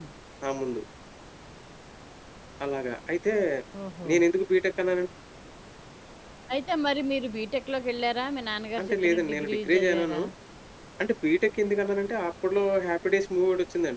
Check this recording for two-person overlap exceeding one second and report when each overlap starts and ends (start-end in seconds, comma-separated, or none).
8.8-10.2